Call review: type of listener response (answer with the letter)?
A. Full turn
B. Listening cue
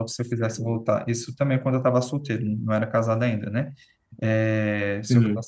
B